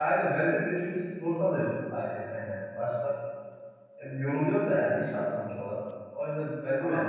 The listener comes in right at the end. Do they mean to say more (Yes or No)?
No